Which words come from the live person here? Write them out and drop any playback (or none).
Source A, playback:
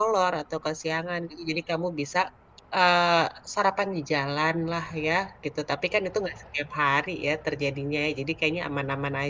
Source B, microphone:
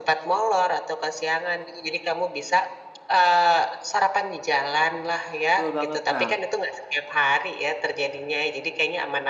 betul banget, Kak.